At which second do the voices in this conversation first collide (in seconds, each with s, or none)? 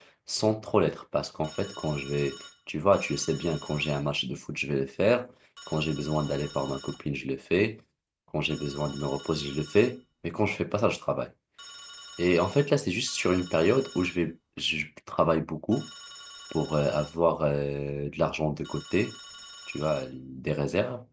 none